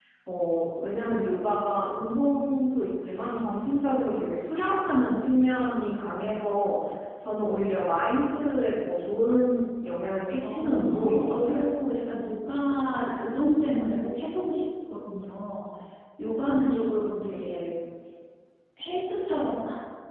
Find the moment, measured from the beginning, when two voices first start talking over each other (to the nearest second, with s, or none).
10 s